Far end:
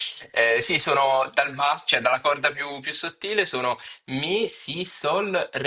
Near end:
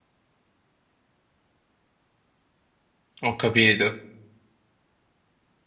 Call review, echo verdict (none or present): none